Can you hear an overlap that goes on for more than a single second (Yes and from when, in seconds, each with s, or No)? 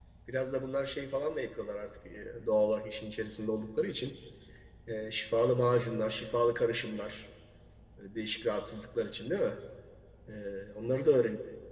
No